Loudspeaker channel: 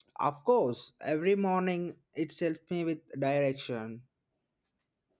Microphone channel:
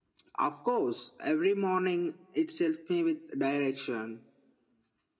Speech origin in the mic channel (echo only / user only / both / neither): echo only